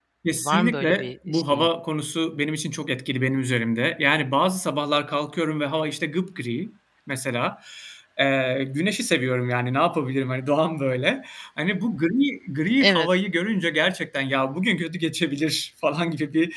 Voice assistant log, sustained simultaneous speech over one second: present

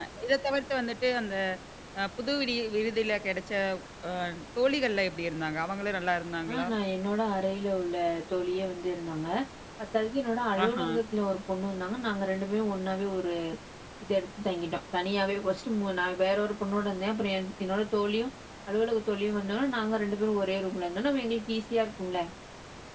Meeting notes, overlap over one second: none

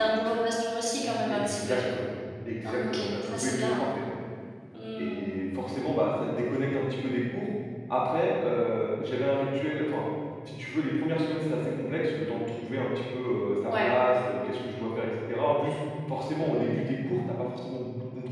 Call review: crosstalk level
present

